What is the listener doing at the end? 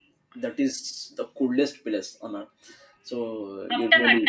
taking over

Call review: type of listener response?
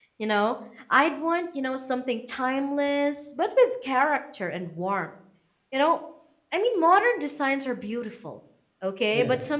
listening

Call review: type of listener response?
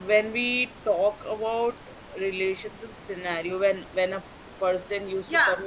taking over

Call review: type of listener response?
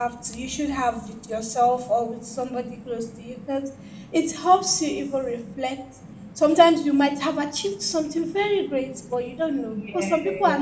listening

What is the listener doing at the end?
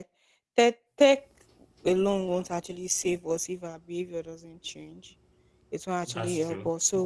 listening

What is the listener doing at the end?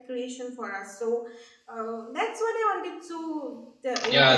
taking over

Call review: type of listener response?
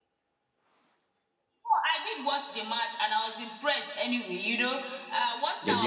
listening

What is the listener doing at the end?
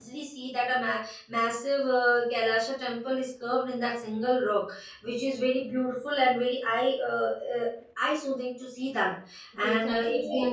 taking over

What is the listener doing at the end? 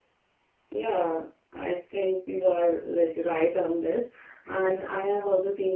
listening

